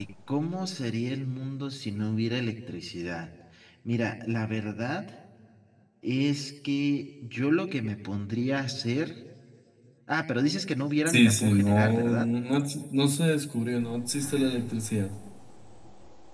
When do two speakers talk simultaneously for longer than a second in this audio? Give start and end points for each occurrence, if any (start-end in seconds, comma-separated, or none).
11.1-12.3